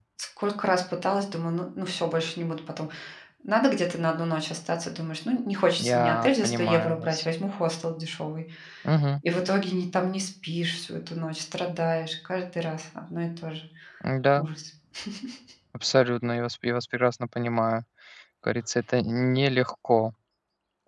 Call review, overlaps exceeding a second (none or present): present